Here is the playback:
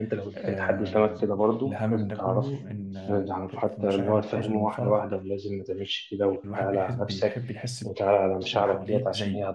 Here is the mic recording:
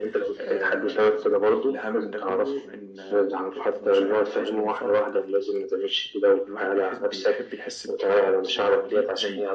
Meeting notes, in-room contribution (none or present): none